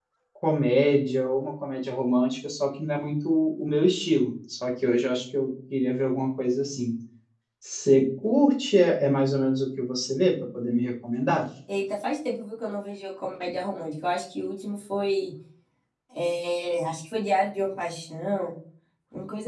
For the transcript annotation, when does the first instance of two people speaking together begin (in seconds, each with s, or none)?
none